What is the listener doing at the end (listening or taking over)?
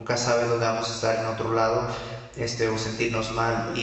listening